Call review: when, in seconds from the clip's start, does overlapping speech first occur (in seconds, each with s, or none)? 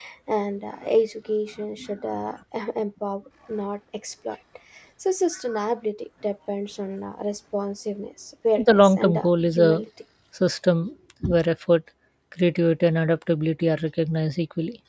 8.6 s